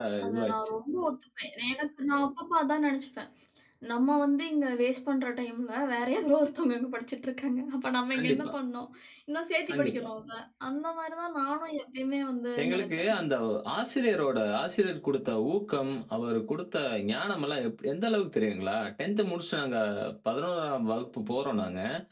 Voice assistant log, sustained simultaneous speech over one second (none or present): none